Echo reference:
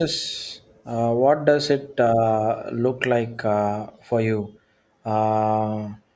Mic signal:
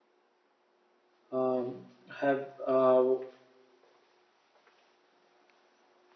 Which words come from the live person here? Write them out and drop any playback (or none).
um, have uh,